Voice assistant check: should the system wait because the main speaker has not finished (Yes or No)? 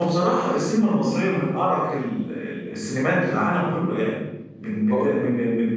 Yes